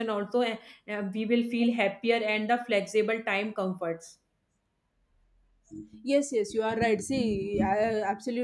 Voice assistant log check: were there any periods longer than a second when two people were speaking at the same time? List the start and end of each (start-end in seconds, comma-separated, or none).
none